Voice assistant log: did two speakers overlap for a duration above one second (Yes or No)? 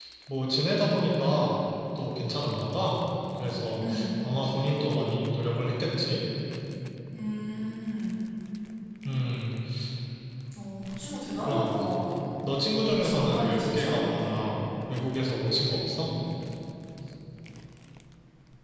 Yes